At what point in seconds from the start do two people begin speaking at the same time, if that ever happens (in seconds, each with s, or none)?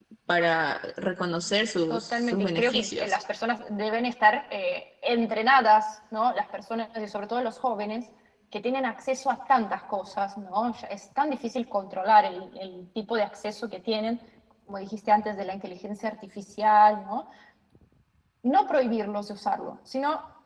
1.9 s